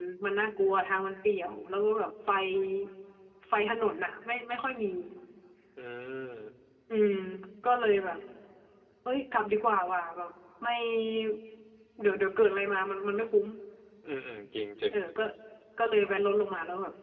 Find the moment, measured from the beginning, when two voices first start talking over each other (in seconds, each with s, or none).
none